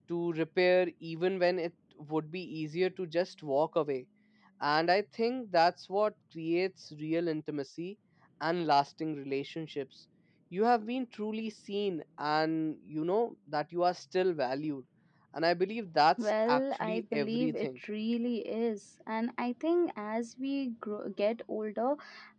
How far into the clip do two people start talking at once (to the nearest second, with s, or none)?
16 s